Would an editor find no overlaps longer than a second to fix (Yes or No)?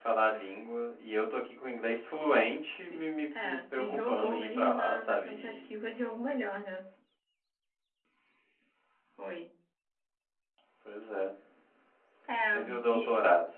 No